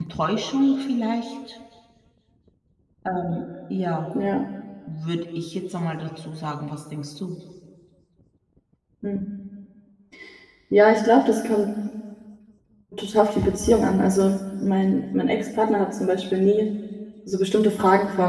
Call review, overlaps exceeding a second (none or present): none